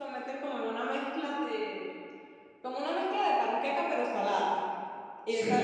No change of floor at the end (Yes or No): Yes